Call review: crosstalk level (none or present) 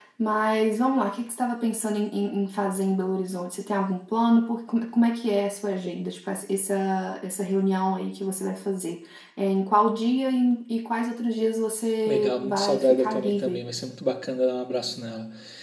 present